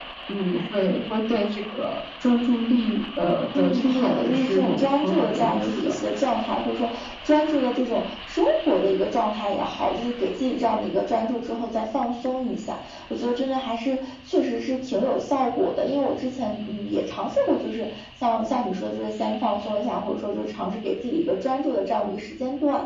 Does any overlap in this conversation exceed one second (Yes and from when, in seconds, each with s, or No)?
Yes, from 3.5 s